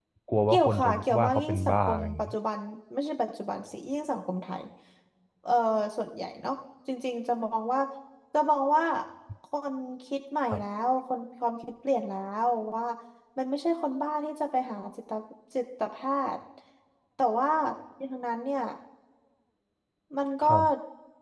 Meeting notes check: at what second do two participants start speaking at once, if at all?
1 s

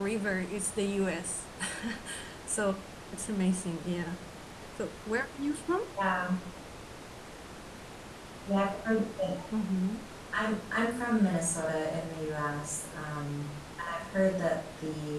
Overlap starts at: none

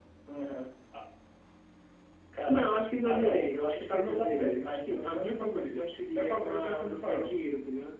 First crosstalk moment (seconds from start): 2 s

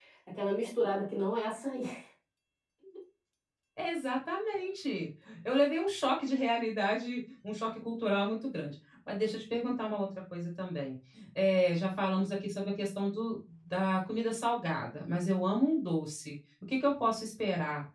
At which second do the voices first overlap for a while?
none

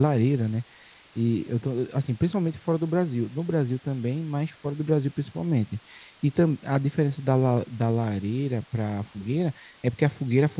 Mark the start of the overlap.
none

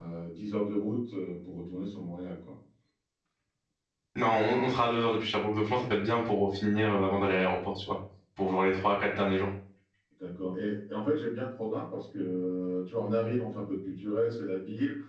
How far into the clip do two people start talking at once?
none

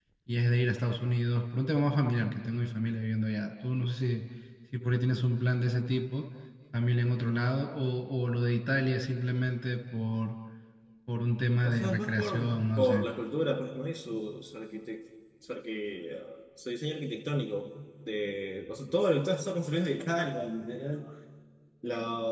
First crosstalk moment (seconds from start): 12 s

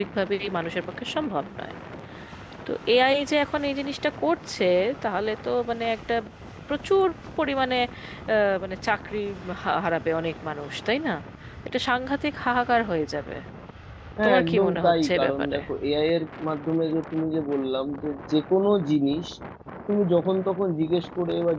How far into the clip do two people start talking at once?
14 s

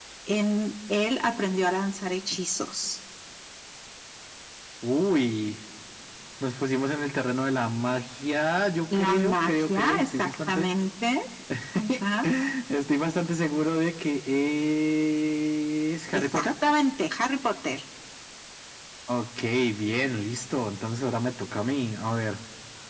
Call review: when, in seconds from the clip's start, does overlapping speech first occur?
9 s

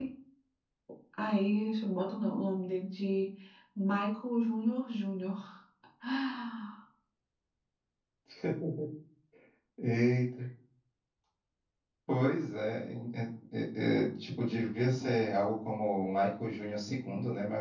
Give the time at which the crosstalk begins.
none

